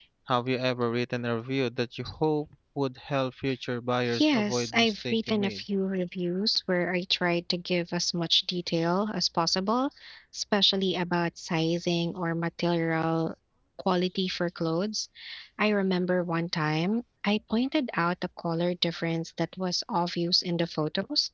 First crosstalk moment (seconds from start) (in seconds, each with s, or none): 4.1 s